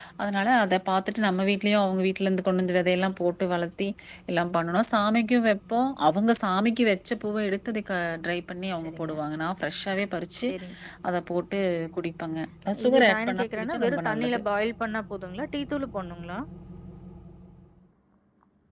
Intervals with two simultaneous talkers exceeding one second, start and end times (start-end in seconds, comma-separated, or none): 12.9-14.4